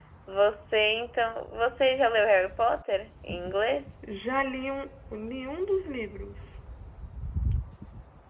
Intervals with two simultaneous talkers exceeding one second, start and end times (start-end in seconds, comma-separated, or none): none